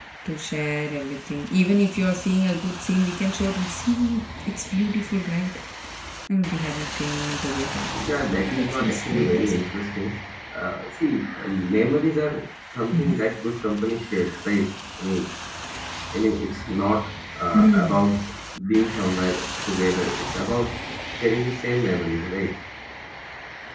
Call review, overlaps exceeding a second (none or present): present